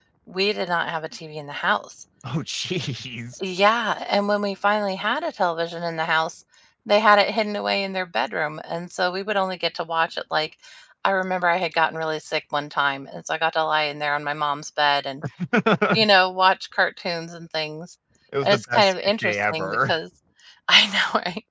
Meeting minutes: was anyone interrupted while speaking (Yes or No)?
Yes